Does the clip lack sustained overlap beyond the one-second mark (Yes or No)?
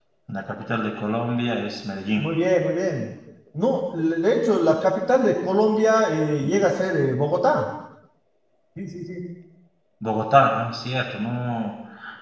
Yes